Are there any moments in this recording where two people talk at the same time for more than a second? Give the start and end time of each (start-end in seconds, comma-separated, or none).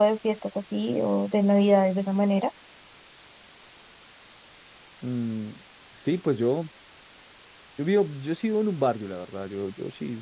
none